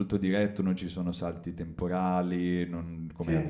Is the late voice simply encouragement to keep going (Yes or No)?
Yes